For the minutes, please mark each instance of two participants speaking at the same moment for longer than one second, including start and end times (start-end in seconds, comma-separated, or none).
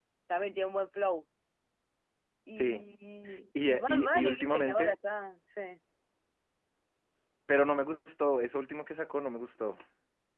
3.6-4.9